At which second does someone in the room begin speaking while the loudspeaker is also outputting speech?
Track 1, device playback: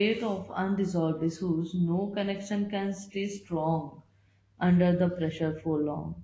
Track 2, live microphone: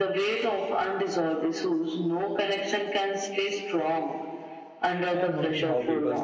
5.1 s

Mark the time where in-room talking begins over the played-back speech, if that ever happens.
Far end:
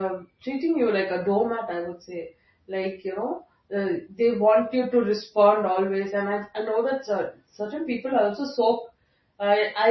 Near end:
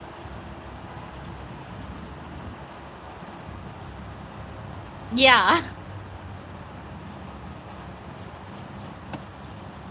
5.1 s

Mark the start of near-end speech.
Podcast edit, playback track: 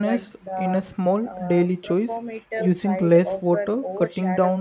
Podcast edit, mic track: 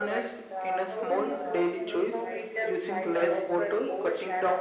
0.9 s

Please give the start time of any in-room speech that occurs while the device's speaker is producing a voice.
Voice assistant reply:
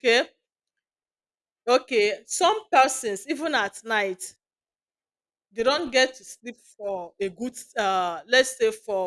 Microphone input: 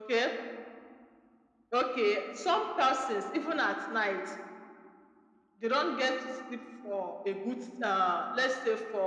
none

